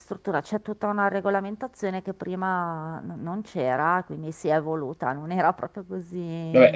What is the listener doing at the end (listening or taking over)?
taking over